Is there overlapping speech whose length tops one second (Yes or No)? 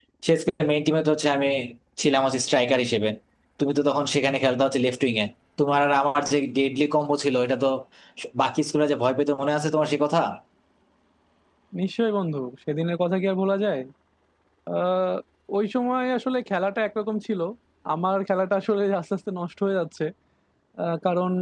No